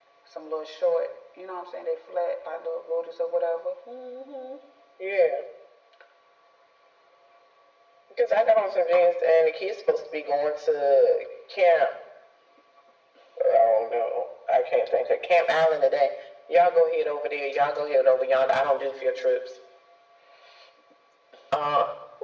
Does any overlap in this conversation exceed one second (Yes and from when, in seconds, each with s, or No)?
No